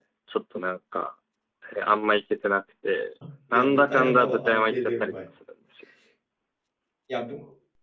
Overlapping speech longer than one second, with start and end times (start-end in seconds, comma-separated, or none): 3.5-5.1